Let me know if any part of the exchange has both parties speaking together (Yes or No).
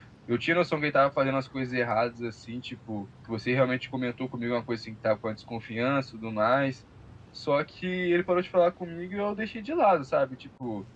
No